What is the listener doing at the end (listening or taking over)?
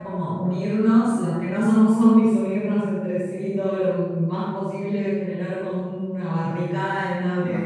listening